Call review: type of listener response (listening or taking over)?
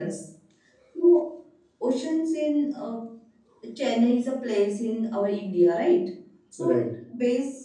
listening